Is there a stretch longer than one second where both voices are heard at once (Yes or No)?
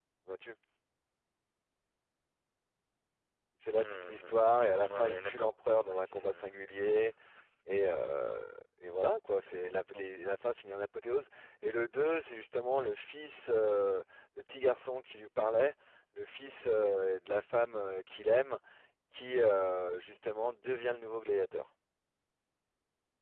Yes